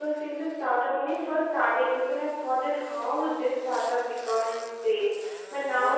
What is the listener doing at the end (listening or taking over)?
listening